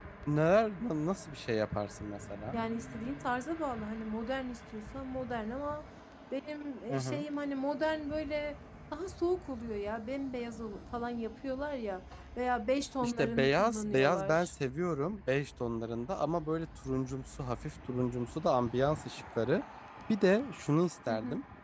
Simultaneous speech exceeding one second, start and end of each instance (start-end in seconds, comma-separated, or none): 13.0-14.5